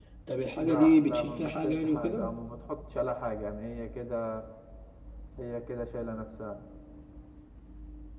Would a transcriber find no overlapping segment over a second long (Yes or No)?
No